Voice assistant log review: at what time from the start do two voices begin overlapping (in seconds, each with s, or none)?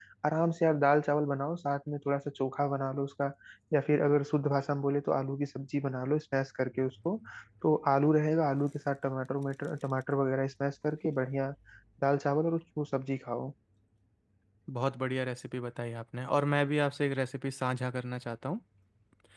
none